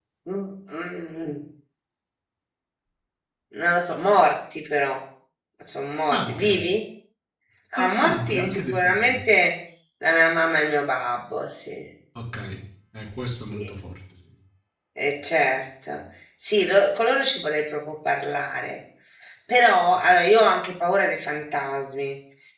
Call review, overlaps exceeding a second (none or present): present